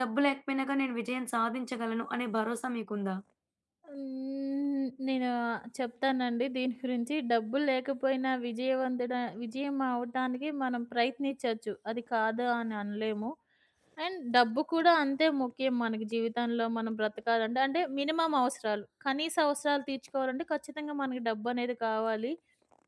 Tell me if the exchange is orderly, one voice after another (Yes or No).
Yes